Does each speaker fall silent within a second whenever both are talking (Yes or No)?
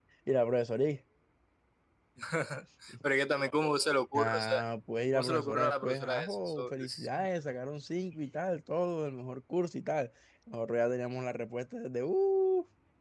No